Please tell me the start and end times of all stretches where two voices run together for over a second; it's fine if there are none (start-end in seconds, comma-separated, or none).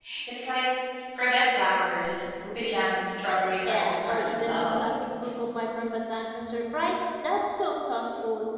3.2-4.9